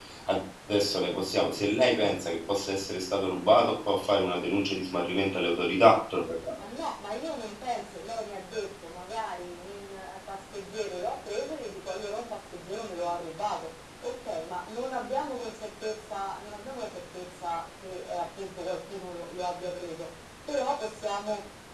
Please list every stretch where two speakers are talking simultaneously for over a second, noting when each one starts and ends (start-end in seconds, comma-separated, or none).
none